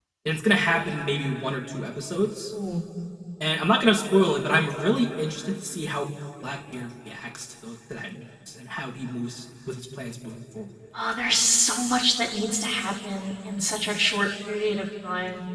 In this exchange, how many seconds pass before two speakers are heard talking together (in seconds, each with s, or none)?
none